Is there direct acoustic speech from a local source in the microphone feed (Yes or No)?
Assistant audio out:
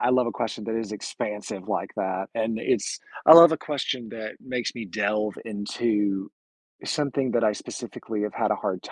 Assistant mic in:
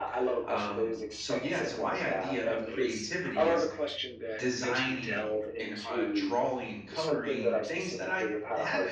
Yes